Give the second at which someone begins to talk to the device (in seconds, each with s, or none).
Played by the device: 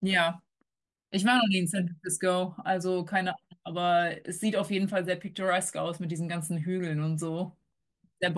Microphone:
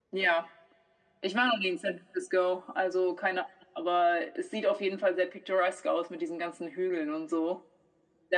none